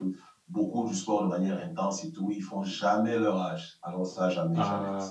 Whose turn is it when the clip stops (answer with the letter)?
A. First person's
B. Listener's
B